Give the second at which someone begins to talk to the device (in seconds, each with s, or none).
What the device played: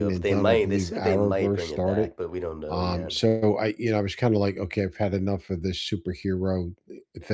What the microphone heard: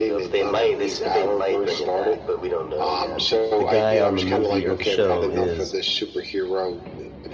3.6 s